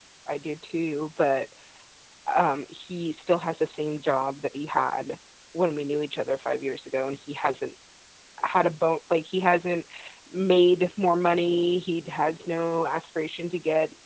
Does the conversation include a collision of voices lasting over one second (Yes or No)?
No